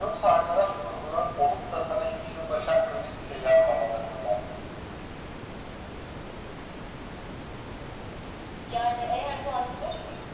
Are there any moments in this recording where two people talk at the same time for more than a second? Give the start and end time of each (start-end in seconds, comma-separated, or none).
none